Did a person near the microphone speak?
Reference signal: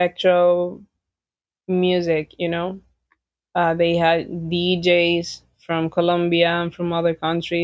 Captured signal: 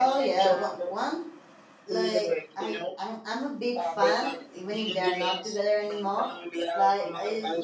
Yes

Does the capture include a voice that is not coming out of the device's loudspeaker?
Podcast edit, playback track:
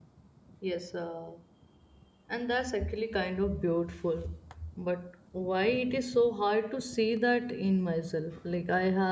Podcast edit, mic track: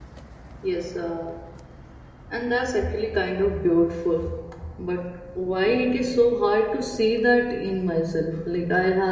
No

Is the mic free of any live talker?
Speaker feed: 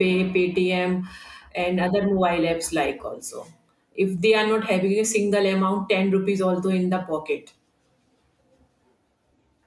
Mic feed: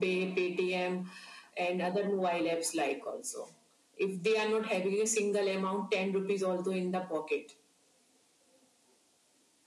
Yes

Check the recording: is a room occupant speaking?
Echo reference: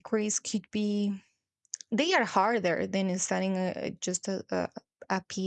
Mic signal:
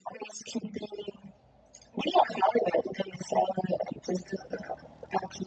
No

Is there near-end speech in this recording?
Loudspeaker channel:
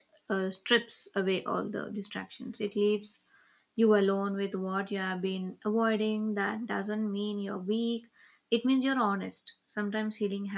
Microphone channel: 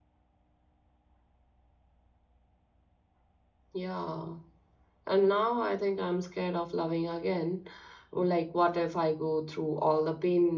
Yes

